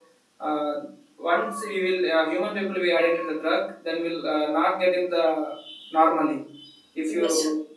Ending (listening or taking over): listening